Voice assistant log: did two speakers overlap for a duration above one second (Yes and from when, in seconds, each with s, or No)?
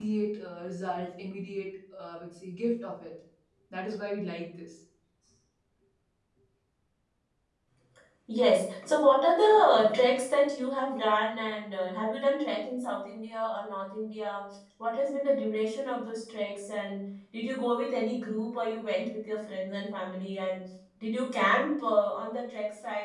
No